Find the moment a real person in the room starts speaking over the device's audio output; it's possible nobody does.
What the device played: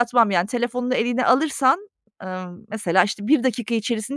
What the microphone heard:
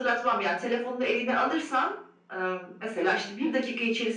none

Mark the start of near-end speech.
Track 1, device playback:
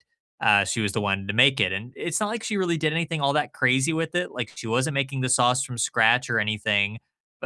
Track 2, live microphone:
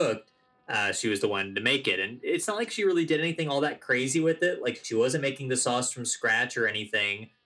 none

